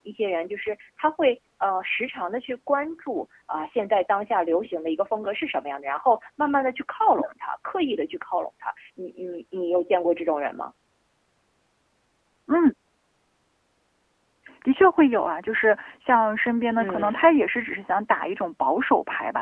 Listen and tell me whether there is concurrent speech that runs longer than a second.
No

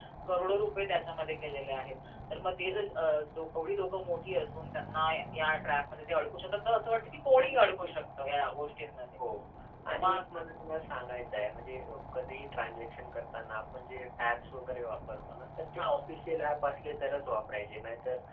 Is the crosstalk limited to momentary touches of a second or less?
Yes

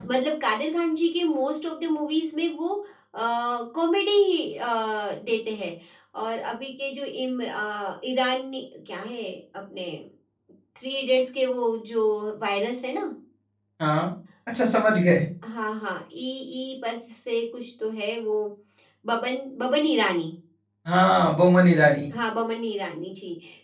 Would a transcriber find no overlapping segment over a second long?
Yes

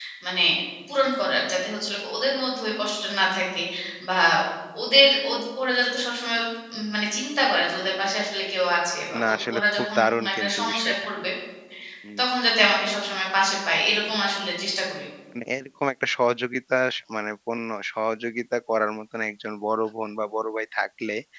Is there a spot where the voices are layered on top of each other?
Yes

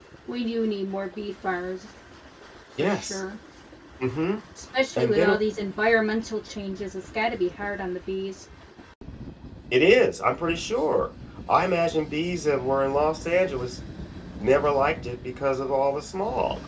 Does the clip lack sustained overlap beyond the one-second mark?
Yes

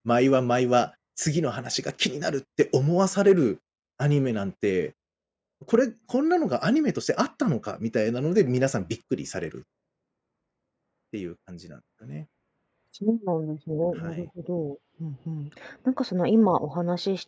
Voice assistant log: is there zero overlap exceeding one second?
Yes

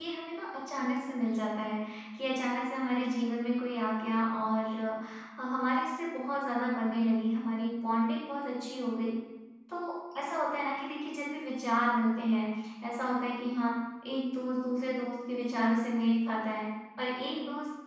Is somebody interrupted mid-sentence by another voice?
No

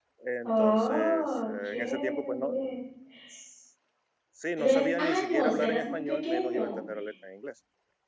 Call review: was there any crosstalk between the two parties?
Yes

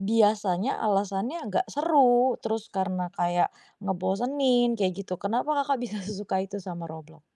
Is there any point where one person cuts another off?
No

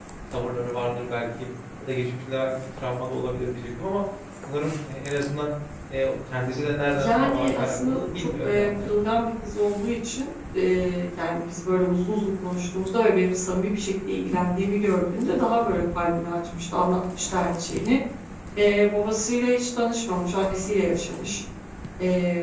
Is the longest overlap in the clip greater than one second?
Yes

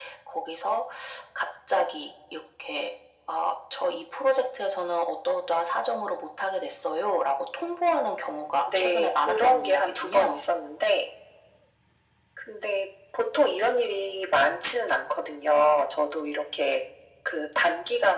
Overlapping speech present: Yes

